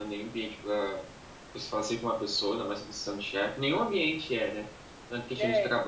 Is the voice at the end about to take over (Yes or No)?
No